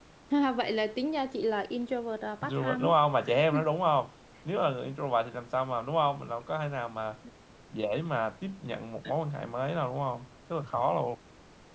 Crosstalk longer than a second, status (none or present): none